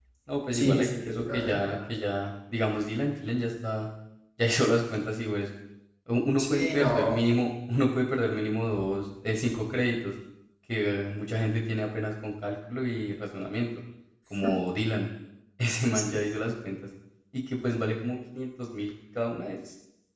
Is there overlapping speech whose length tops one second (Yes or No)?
Yes